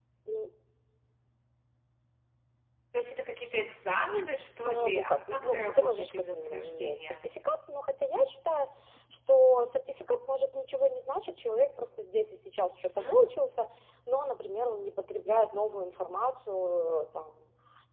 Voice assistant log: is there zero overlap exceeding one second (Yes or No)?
No